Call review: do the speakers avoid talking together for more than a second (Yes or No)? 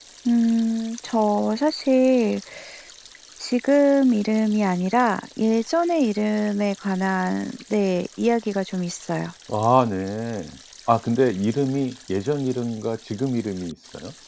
Yes